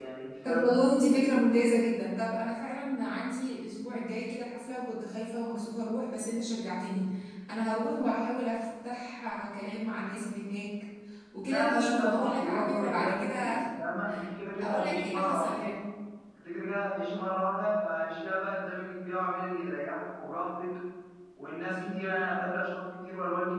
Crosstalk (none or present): present